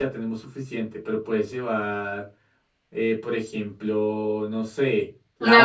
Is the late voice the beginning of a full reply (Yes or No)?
No